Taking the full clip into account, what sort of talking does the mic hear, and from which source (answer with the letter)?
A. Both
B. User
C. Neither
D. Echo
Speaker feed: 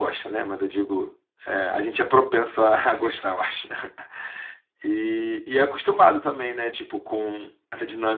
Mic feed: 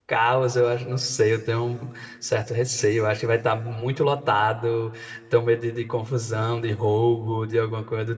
B